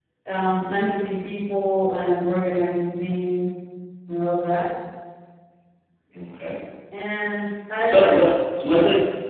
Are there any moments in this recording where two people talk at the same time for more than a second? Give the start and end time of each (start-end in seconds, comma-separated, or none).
none